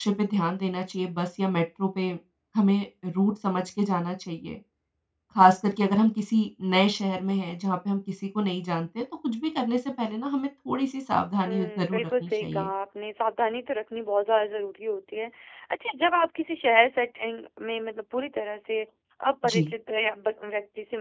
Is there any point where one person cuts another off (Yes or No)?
Yes